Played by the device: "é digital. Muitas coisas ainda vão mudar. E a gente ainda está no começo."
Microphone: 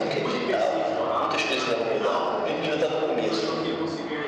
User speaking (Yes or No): Yes